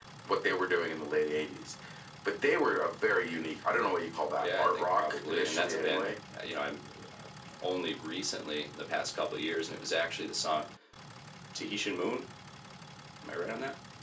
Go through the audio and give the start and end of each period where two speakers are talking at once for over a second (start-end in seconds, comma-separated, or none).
4.4-6.1